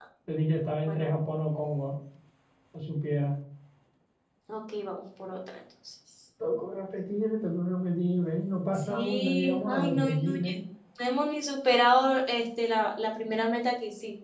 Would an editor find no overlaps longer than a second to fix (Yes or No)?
No